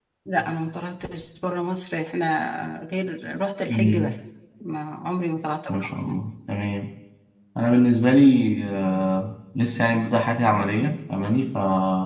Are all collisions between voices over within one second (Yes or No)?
Yes